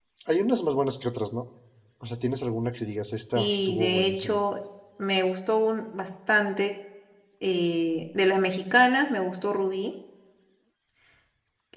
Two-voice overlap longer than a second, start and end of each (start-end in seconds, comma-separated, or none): 3.1-4.4